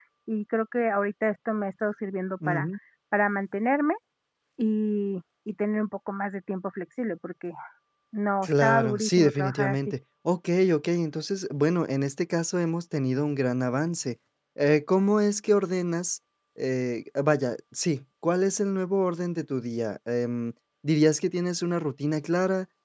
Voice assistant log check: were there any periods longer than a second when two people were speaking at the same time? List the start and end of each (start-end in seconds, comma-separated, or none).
8.4-9.8